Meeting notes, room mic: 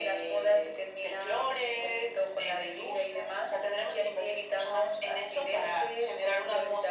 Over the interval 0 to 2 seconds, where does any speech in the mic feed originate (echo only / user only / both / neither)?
echo only